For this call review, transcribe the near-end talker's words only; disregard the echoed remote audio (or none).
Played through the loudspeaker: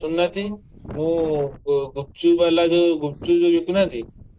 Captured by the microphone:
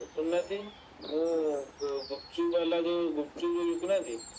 none